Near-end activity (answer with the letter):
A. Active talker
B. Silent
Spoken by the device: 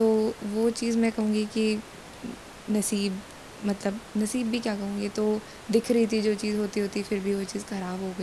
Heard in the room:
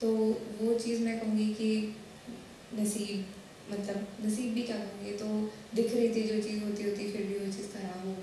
B